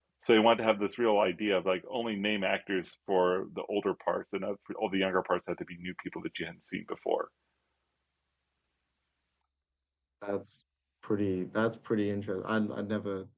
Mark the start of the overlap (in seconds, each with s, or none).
none